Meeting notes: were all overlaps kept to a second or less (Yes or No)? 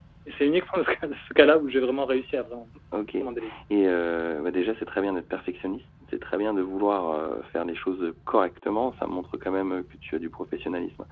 Yes